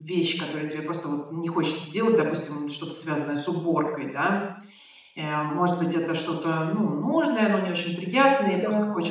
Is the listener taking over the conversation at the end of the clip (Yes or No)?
No